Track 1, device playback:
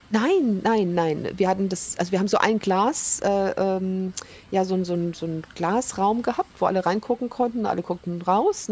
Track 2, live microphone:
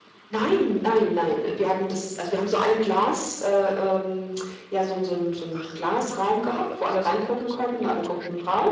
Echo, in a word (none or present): present